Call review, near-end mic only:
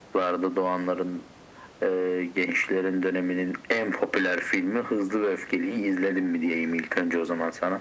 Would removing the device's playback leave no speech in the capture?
Yes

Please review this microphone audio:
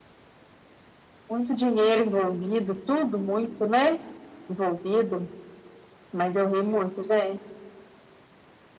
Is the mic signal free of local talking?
Yes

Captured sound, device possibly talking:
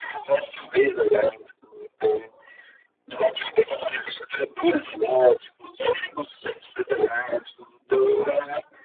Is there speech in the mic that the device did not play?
No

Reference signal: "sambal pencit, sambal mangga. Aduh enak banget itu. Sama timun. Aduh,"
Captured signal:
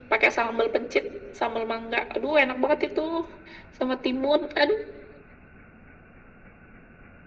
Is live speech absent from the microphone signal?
Yes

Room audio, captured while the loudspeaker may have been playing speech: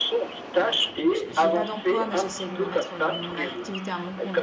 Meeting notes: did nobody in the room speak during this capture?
No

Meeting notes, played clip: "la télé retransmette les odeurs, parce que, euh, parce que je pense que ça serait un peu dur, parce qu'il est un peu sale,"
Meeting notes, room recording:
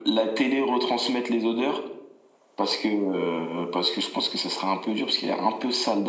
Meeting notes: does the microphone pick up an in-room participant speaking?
No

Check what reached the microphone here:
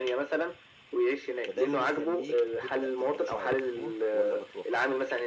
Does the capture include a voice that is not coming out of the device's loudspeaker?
Yes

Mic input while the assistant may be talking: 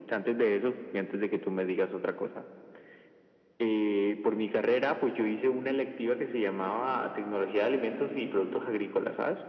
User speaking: No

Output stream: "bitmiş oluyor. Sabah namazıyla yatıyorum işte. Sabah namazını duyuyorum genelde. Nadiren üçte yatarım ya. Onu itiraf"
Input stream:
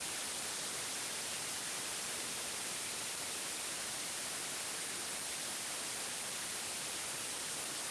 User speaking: No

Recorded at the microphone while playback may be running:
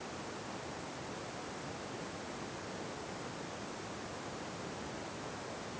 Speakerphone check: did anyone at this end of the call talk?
No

